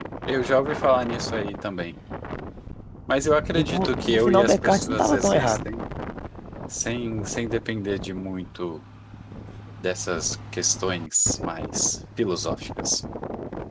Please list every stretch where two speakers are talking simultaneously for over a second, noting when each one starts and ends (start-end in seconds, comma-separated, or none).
3.5-5.7